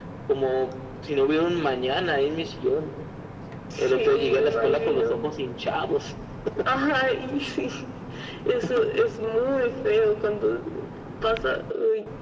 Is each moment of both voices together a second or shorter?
No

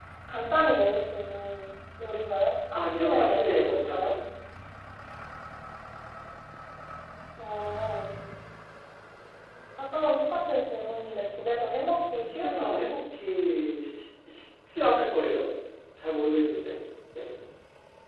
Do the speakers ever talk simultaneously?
Yes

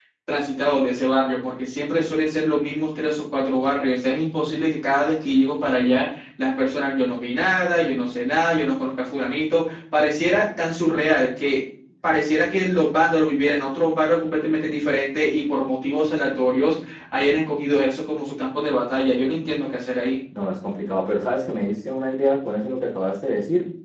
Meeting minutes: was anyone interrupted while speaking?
No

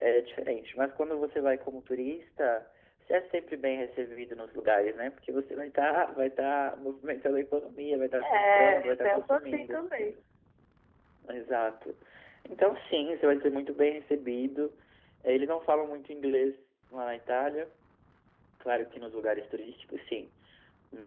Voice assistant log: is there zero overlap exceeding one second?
No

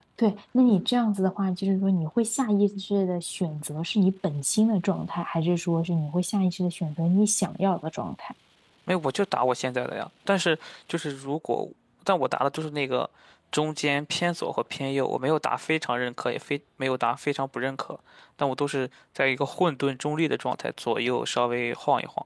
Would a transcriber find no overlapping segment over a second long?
Yes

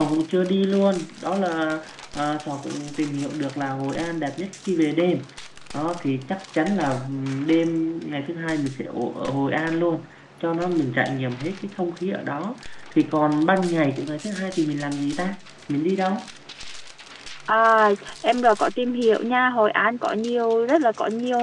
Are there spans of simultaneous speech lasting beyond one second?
No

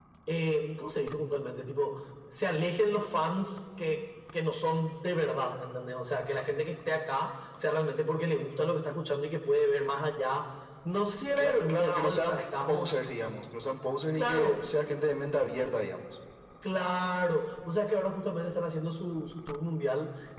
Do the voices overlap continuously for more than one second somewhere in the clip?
Yes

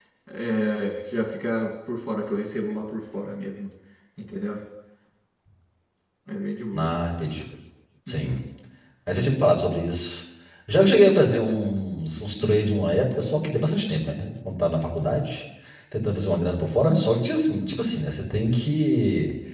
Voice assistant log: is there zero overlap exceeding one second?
Yes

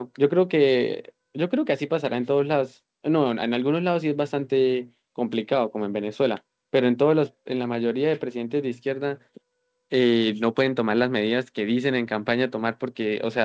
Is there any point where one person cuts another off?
No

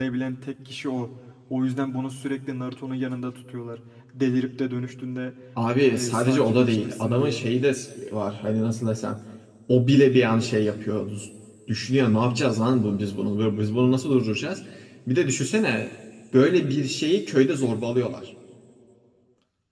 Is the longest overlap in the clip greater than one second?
Yes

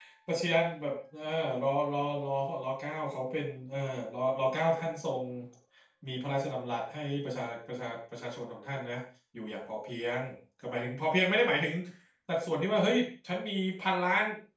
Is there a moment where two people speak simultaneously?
No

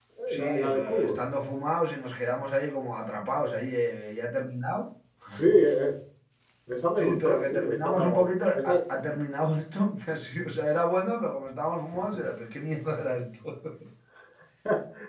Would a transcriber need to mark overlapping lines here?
Yes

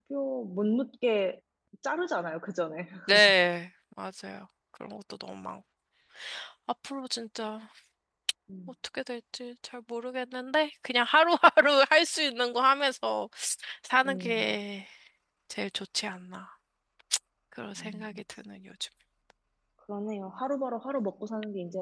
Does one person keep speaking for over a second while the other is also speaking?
No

